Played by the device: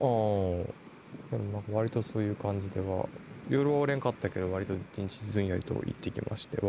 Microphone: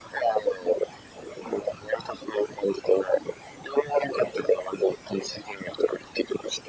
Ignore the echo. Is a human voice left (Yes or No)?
No